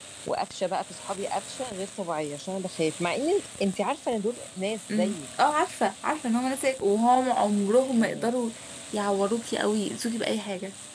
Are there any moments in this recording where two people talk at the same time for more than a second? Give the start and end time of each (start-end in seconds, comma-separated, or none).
none